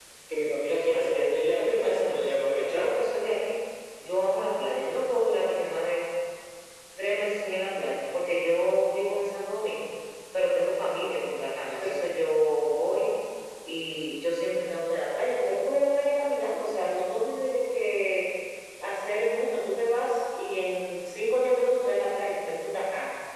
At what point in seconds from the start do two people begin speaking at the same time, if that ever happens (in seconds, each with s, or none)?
0.7 s